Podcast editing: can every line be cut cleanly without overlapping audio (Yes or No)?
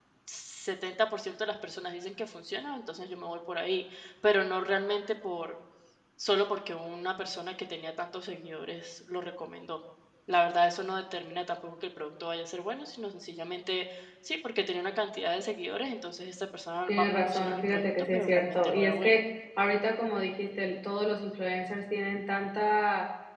No